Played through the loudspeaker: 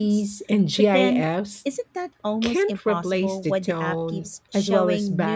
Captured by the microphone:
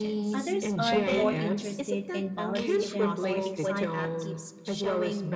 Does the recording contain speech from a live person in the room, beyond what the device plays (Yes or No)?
Yes